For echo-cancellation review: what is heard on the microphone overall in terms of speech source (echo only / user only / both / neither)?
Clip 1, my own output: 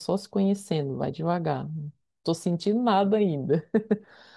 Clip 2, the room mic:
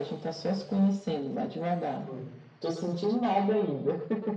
both